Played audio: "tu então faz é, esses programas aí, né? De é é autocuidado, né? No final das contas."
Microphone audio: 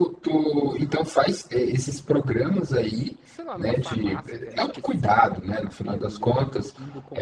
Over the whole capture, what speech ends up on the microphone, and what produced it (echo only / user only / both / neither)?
both